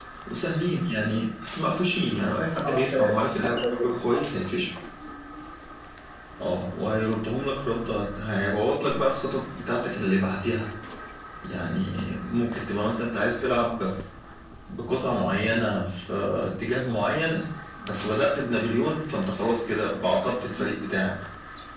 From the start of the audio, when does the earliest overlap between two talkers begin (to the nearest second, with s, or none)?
3 s